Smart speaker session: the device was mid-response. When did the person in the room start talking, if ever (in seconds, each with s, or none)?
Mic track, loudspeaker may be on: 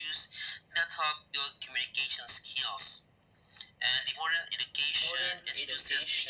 5.0 s